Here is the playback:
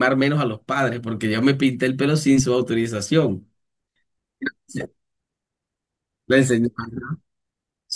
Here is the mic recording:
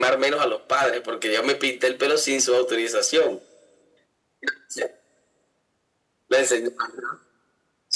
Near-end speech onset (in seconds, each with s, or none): none